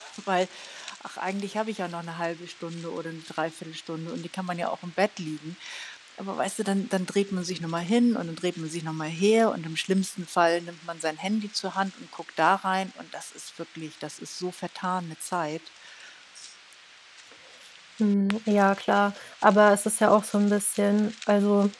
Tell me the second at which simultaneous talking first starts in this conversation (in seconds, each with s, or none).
none